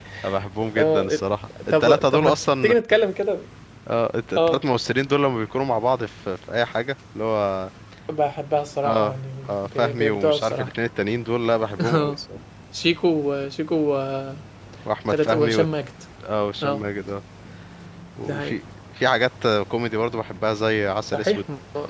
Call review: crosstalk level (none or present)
present